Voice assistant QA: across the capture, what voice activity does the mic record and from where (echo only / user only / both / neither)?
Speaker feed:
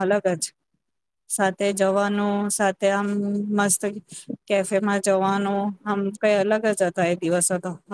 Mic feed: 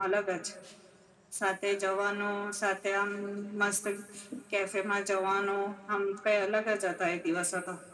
echo only